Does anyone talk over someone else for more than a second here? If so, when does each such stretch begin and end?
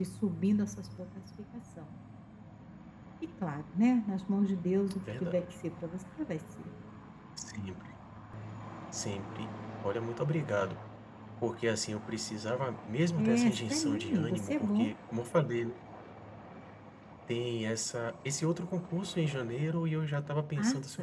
13.2-14.9

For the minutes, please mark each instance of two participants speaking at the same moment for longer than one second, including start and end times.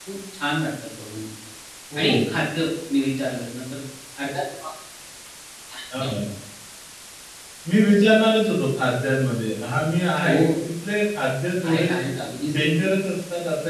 none

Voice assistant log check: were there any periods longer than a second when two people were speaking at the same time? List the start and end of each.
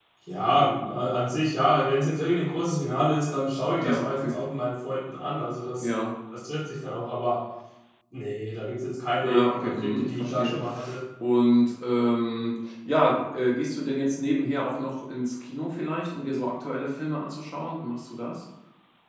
9.2-10.6

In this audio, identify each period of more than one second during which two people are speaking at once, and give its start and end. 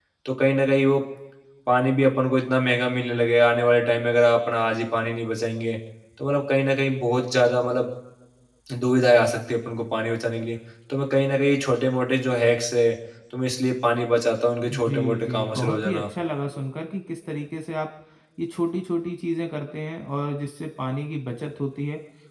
14.7-16.0

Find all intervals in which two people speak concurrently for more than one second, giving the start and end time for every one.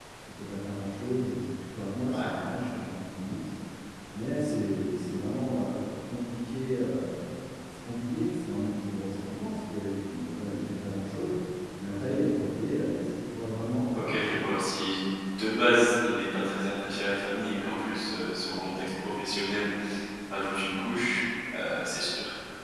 none

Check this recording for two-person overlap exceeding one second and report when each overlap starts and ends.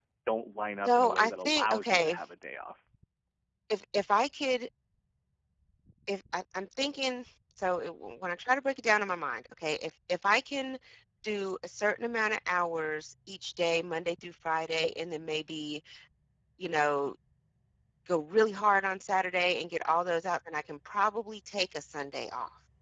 0.8-2.2

